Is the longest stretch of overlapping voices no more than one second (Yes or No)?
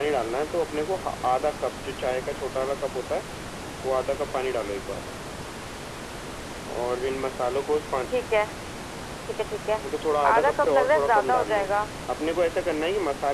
No